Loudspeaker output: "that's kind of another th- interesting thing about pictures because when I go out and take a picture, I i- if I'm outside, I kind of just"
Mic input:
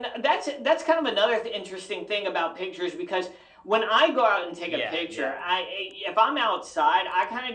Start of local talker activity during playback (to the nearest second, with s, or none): 5 s